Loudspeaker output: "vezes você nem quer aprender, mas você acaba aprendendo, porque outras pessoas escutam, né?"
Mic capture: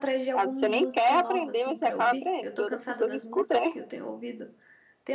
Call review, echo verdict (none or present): present